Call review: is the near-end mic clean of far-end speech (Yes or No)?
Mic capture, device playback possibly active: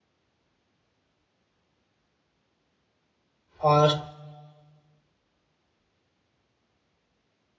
Yes